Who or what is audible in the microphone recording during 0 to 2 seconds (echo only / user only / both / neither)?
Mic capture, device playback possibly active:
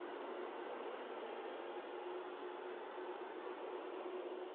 neither